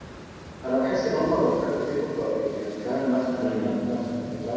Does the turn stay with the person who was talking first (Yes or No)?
Yes